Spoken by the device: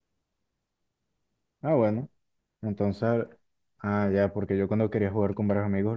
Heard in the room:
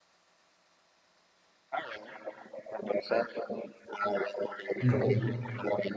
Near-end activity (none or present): present